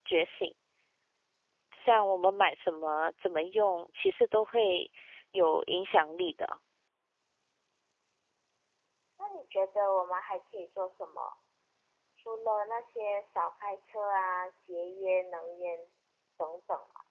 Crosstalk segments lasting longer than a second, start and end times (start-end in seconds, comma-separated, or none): none